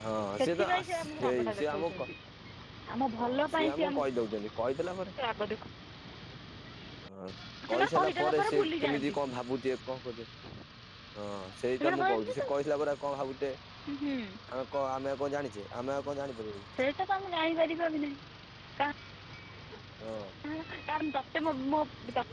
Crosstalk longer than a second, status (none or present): present